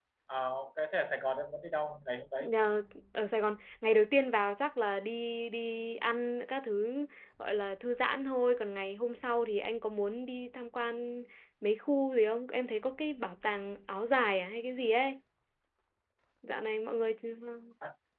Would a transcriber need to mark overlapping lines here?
No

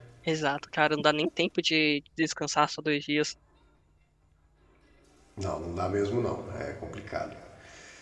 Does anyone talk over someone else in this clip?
No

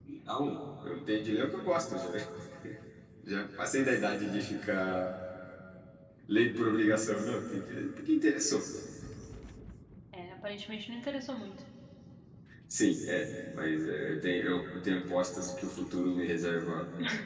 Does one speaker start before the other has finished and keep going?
No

